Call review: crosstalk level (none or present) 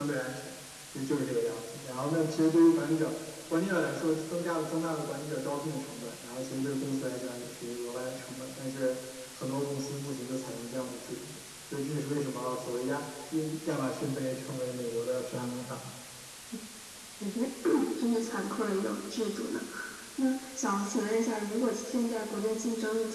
none